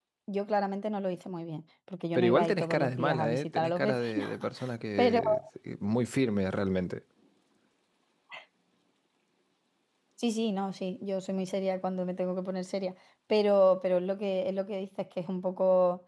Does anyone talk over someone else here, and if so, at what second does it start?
2 s

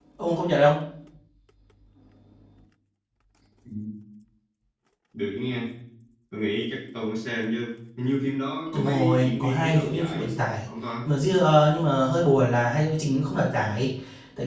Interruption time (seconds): 9 s

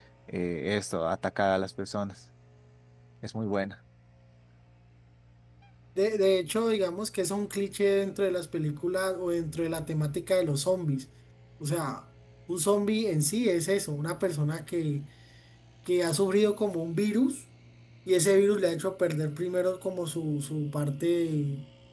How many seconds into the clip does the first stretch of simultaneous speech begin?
none

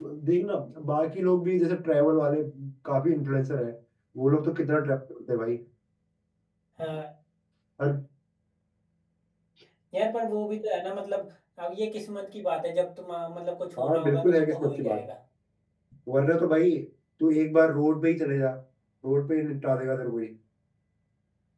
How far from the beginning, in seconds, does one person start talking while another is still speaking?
14 s

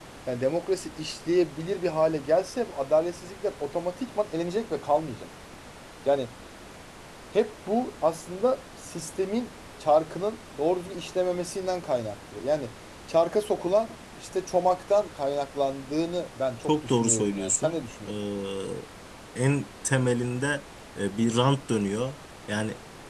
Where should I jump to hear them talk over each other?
17 s

